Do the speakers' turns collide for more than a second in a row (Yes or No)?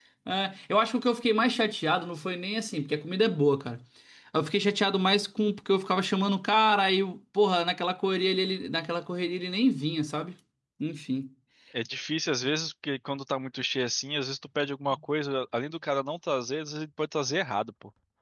No